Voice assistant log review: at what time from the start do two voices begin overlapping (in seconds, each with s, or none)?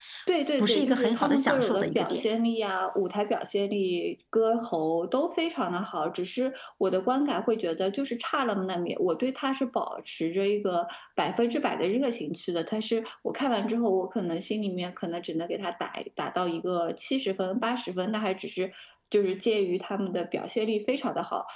0.6 s